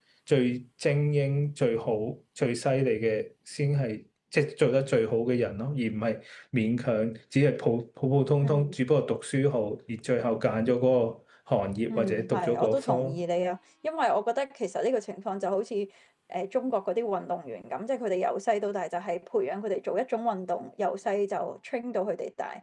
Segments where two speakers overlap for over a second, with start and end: 11.9-13.2

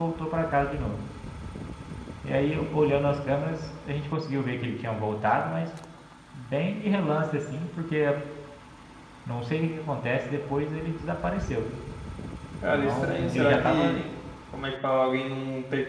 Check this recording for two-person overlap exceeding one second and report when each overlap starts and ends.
12.7-13.9

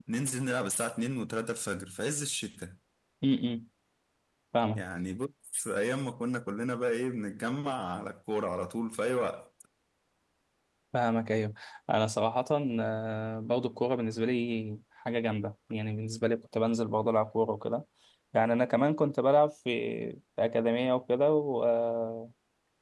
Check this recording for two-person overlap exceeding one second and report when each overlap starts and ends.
none

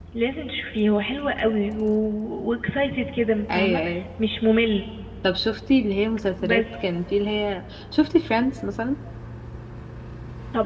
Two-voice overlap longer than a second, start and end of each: none

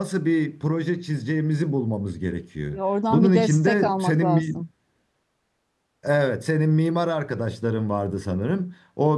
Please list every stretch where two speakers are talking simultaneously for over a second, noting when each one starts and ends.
3.1-4.5

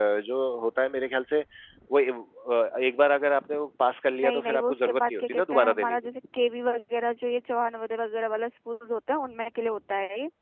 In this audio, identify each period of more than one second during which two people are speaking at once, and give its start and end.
4.1-6.0

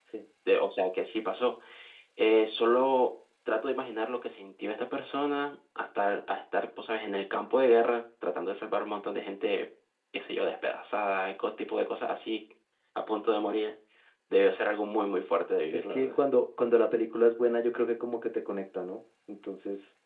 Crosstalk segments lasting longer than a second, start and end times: none

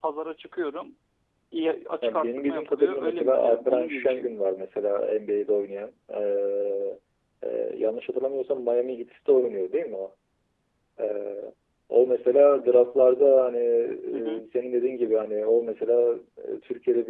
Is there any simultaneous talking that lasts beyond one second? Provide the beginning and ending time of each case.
2.0-4.4

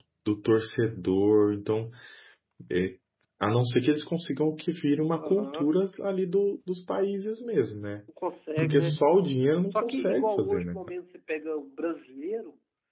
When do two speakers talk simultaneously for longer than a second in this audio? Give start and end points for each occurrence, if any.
9.7-10.9

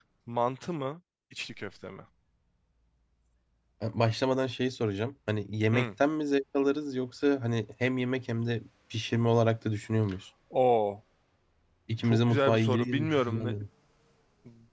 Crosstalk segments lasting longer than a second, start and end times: 12.0-13.5

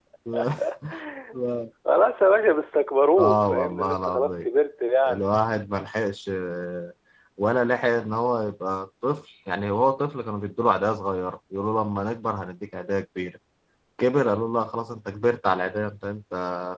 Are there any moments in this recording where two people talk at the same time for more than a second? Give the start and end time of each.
3.2-4.5

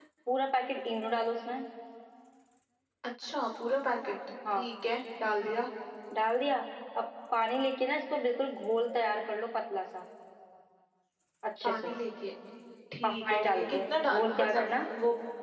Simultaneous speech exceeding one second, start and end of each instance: 13.0-14.7

